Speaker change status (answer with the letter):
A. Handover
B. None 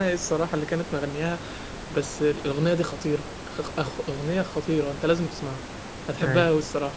B